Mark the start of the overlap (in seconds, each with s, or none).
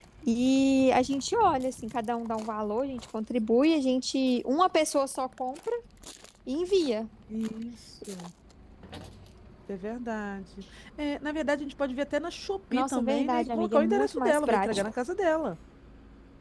12.7 s